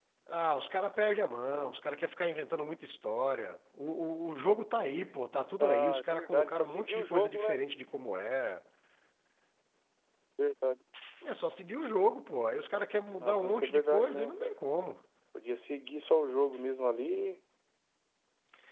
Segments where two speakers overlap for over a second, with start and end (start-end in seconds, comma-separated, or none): 5.6-7.6, 13.2-14.6